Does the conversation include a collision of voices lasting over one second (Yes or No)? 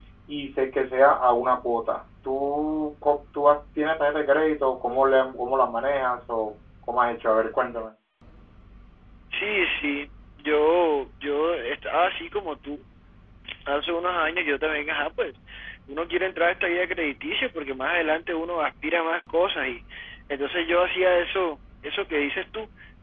No